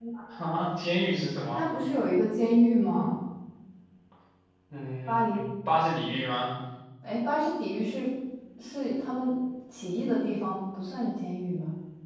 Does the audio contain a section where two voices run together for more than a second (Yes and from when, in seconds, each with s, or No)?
No